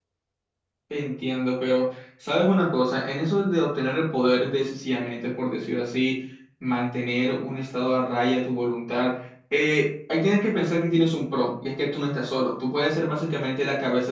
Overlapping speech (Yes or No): No